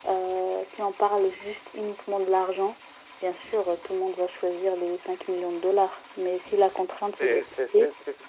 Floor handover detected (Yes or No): Yes